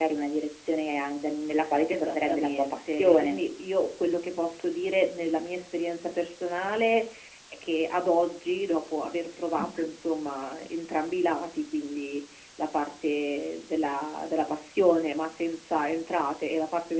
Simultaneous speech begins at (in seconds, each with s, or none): 1.9 s